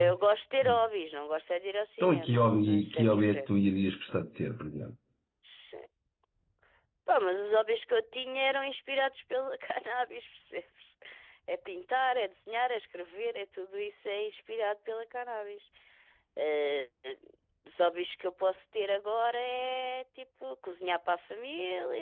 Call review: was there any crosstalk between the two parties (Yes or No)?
Yes